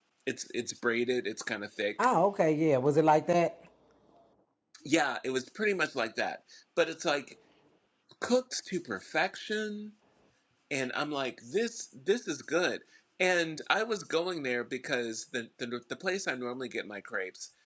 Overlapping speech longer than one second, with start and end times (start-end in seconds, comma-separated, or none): none